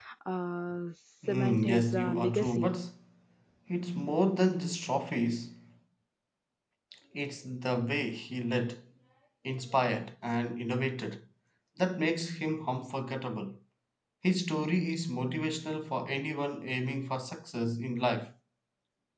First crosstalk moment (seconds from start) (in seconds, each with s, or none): 1.3 s